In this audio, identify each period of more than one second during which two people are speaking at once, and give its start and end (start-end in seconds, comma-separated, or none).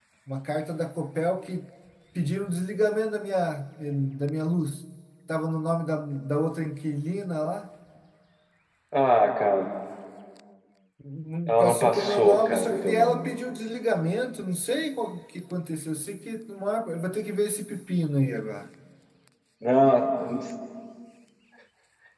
11.5-13.3